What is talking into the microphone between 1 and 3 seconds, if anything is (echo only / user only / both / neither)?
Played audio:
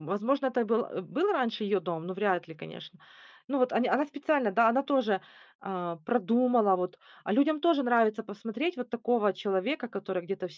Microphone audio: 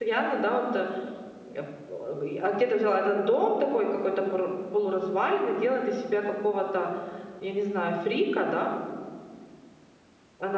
user only